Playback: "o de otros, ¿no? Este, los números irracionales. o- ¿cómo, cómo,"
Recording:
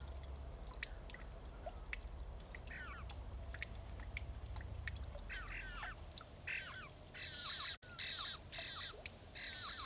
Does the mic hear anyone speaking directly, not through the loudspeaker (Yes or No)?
No